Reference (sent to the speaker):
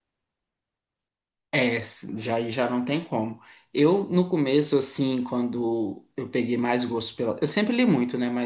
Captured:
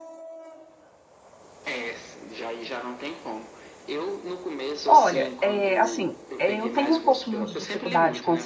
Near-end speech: present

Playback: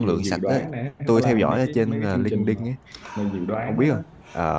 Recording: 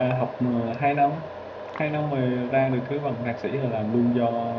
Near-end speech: present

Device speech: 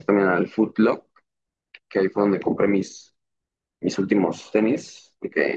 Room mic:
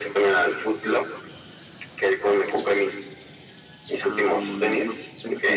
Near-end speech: present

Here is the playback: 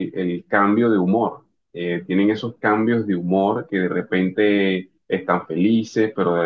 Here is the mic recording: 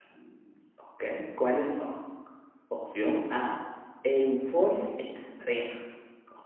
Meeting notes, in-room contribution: present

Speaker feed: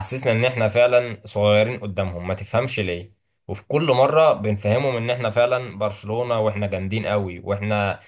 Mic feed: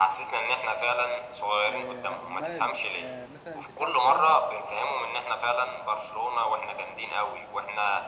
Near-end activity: present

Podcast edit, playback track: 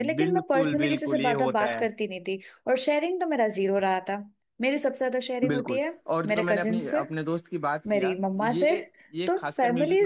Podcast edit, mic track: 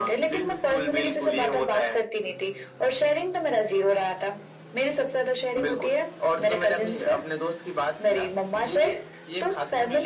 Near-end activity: none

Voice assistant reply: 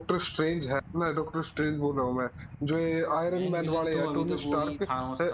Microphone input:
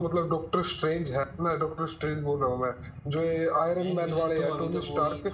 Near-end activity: none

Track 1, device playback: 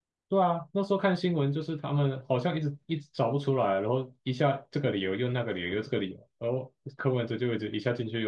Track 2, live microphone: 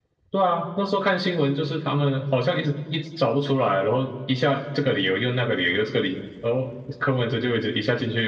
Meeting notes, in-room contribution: none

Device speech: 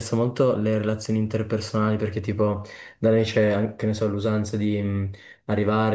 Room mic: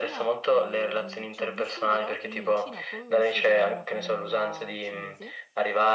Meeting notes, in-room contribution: present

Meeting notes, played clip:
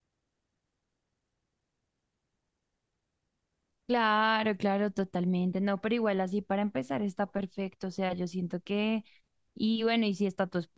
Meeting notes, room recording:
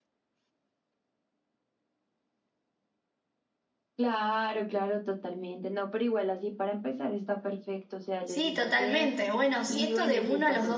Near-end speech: present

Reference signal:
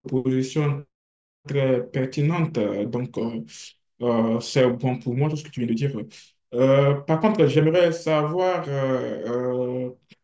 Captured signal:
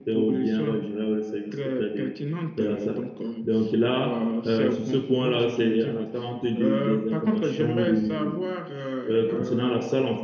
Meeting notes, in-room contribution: present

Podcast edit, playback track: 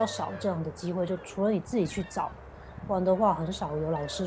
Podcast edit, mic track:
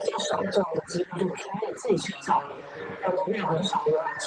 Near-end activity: present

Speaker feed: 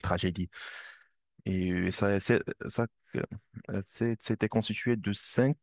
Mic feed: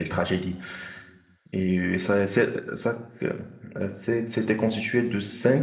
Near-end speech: none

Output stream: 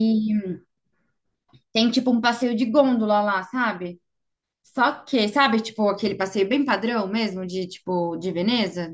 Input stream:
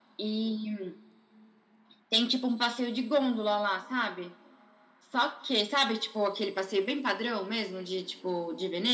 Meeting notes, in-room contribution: none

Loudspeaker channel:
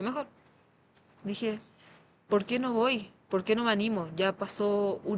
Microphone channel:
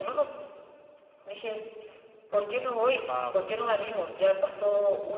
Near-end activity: present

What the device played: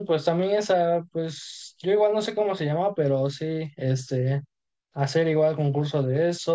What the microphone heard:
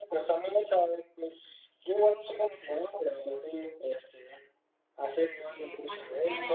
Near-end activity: present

